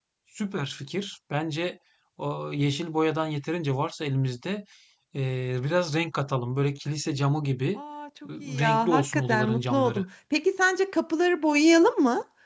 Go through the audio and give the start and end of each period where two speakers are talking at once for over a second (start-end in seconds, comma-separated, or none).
8.4-10.0